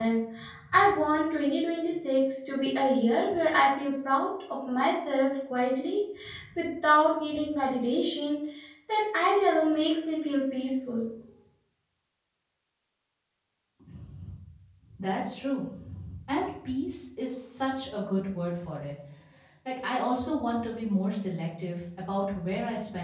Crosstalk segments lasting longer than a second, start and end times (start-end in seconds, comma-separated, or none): none